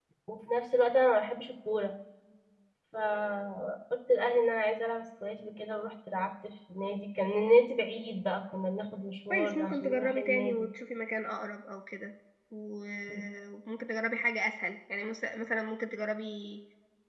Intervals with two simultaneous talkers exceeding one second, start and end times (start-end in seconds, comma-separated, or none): 9.3-10.7